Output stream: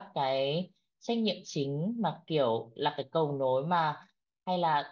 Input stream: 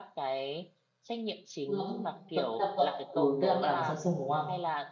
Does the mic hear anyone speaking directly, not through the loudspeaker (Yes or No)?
Yes